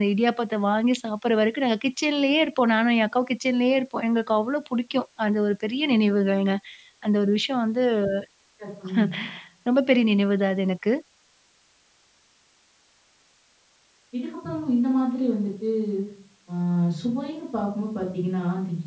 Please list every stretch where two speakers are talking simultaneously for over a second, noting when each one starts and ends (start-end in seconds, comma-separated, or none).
none